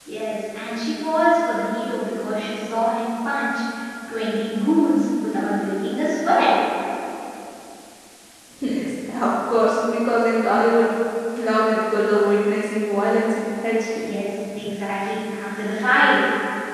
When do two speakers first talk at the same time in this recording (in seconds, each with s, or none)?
none